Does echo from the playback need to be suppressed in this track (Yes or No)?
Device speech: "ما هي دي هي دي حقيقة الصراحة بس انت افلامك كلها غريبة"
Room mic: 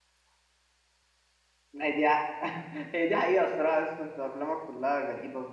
Yes